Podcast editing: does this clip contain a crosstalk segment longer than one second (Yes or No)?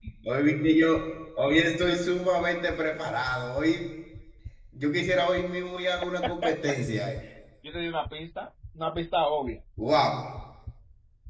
No